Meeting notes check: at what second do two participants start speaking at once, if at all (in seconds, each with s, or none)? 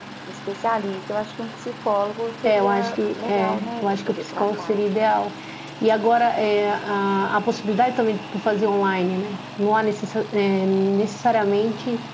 2.5 s